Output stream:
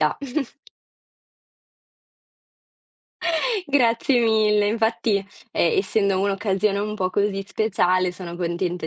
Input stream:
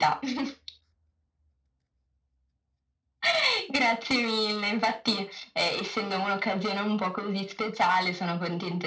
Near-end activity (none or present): none